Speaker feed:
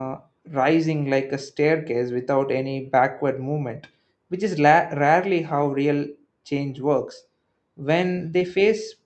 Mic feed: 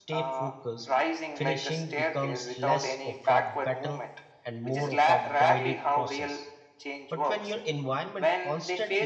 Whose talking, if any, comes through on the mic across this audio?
both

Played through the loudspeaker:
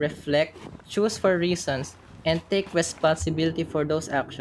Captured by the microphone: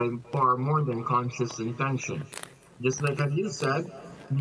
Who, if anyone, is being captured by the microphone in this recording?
user only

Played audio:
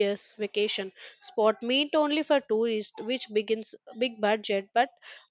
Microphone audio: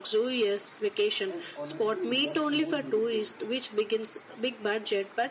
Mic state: both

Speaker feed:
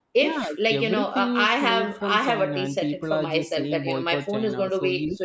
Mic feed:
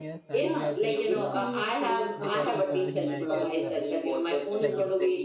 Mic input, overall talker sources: both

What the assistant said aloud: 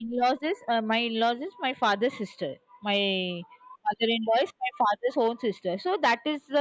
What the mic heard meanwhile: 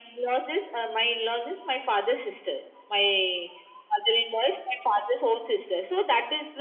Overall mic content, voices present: echo only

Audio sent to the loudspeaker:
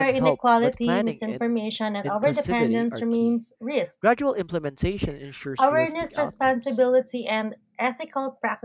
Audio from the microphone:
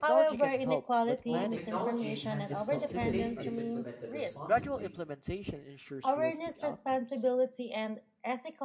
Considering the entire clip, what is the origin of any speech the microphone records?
both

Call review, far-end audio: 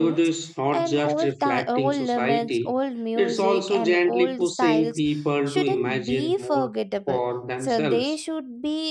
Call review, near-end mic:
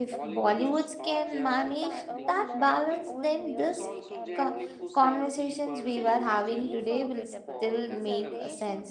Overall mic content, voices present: both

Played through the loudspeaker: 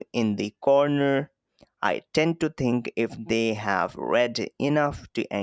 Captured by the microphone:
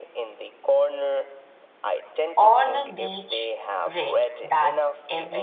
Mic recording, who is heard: both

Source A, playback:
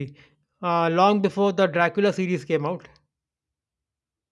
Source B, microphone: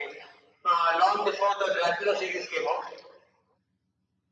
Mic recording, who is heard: echo only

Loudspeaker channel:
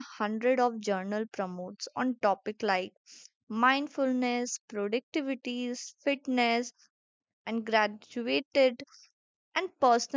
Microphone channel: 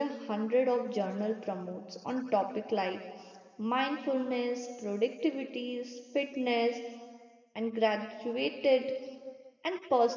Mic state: echo only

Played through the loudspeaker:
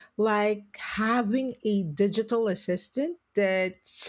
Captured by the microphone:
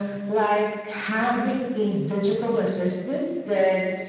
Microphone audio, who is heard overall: echo only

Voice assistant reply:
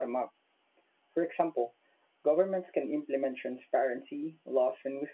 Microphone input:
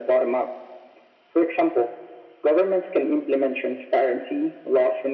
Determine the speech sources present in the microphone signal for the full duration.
echo only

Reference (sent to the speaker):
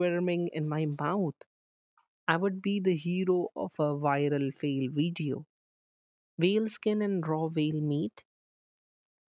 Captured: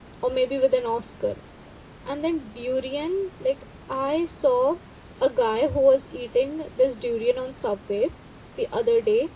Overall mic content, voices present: user only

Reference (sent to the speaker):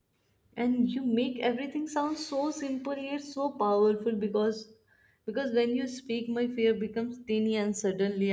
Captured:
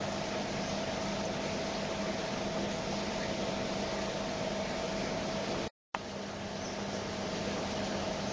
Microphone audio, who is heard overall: neither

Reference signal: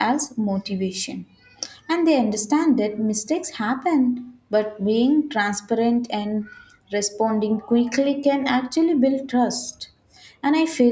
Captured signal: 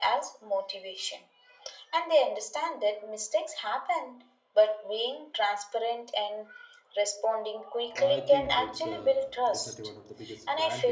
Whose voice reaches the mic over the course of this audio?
both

